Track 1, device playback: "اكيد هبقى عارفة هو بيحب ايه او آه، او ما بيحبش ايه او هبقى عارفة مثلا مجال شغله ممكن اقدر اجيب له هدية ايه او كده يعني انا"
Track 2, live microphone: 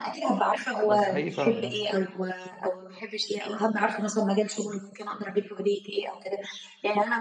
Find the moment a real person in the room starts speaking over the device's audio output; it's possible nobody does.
1 s

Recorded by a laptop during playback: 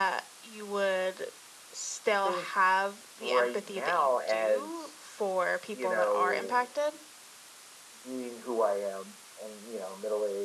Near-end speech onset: none

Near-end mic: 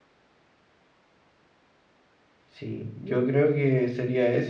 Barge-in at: 3 s

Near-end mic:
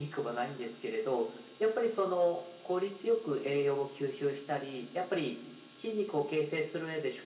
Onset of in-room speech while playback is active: none

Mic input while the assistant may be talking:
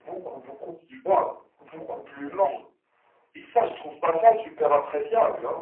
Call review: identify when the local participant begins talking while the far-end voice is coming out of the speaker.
none

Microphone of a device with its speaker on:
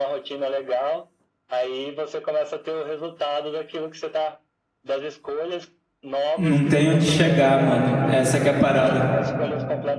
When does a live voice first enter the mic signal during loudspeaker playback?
6 s

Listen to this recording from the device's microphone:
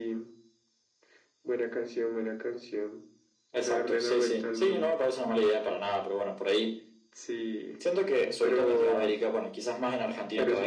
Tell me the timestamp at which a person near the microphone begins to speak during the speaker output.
none

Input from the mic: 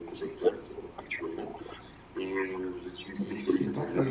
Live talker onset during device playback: 3 s

